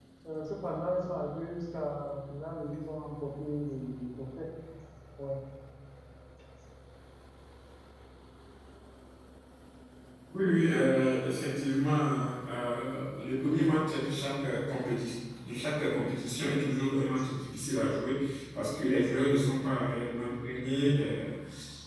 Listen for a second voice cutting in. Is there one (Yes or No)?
No